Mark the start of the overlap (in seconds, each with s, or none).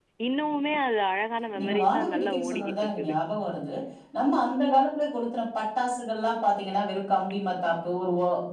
1.6 s